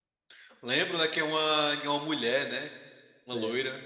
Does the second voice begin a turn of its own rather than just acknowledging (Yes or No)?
Yes